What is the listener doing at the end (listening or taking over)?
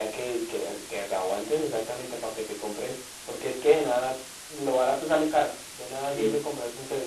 listening